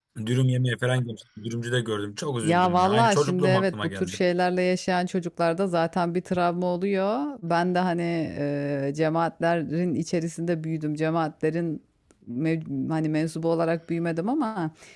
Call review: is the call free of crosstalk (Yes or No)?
No